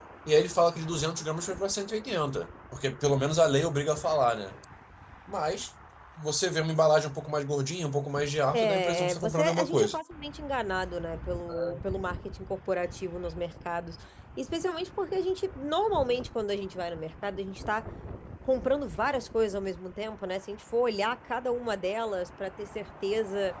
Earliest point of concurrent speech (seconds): 8.5 s

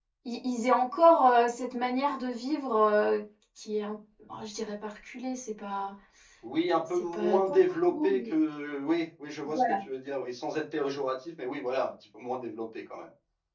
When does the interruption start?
6.9 s

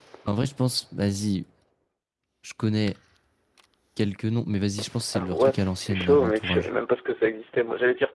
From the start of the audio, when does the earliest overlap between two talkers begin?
5.1 s

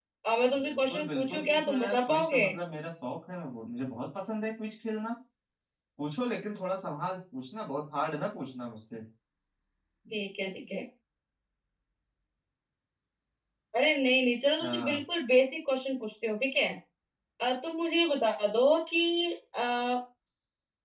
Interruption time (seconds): 0.6 s

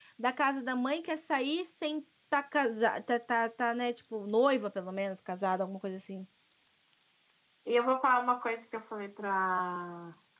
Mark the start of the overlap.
none

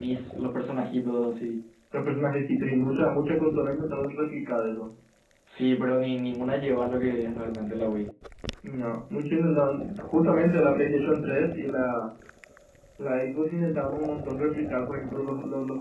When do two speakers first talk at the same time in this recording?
none

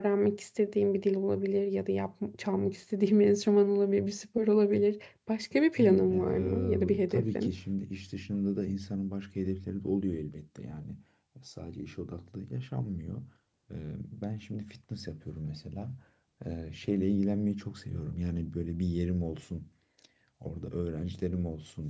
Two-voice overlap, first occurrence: 5.8 s

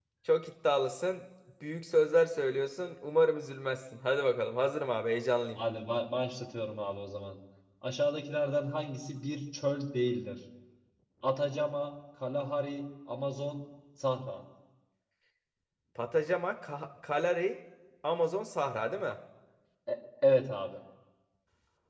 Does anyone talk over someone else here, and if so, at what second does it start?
none

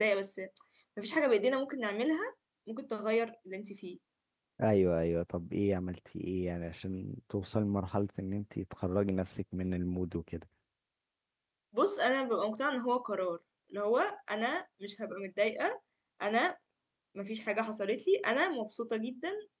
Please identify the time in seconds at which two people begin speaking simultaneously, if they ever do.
none

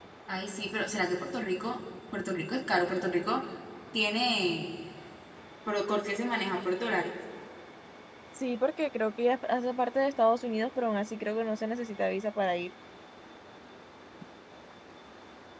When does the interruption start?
none

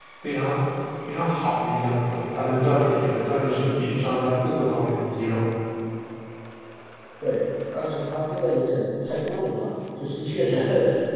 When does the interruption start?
none

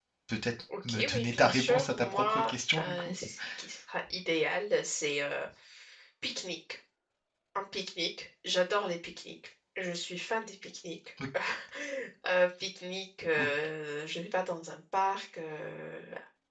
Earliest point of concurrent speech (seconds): 0.9 s

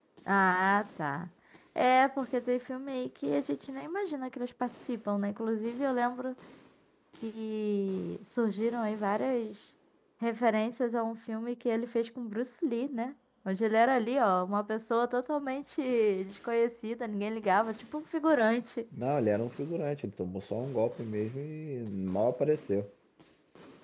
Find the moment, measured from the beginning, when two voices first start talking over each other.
none

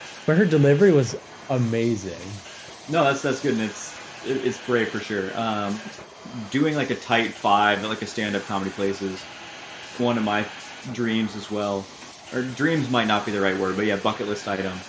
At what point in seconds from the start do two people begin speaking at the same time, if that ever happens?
none

